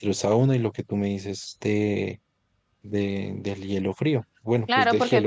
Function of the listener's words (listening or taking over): taking over